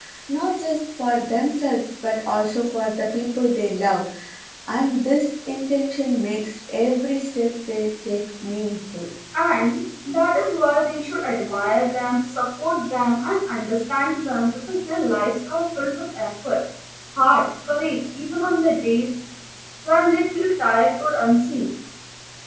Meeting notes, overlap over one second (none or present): none